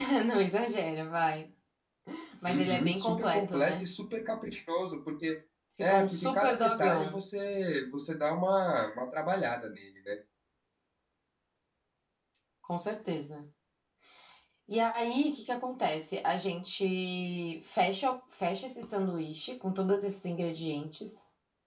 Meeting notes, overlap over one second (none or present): present